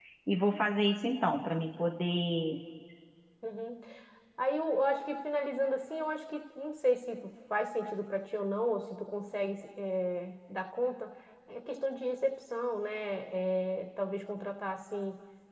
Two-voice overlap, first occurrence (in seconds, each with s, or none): none